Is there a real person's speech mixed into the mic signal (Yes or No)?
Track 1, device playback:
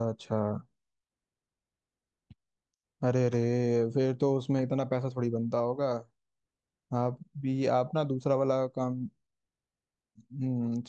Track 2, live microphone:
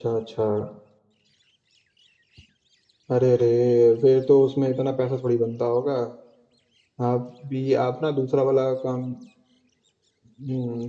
No